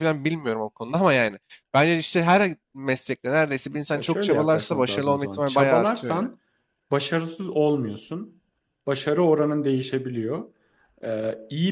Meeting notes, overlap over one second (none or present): present